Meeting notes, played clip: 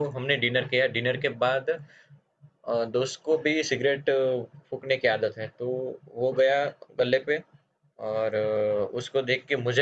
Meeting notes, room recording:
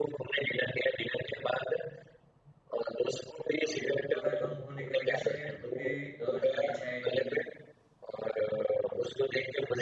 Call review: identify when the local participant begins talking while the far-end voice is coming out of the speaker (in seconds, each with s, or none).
3.6 s